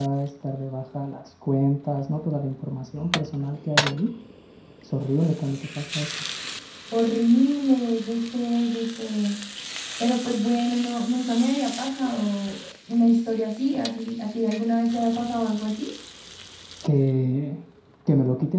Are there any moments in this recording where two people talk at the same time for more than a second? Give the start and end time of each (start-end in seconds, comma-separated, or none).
none